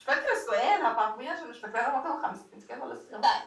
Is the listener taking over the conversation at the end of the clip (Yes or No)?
Yes